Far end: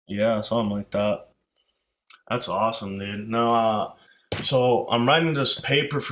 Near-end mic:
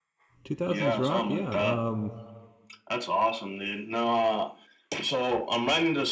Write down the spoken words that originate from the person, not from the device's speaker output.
Two thousands rock, yeah. Um,

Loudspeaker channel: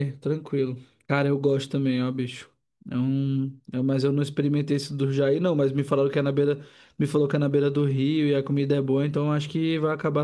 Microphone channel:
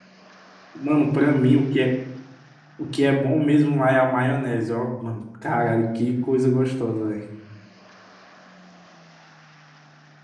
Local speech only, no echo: Mano, pra mim, o que é, o que é bom mesmo lá é a maionese, ó. Mano, caralho, que coisa gostosa, velho.

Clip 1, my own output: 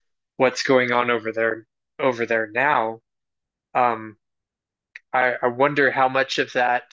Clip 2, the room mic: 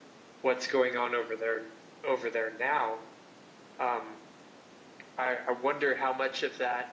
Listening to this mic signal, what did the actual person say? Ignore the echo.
none

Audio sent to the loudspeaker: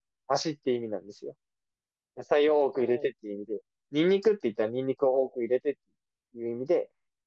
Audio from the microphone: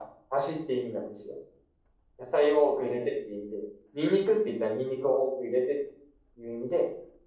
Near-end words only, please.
none

